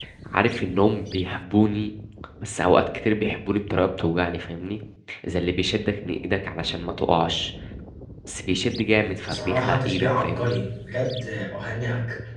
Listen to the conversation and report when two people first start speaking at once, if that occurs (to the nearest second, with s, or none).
9 s